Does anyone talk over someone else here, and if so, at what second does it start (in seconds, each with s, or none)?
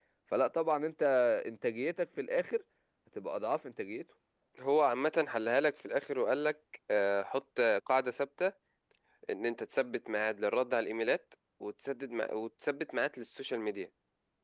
none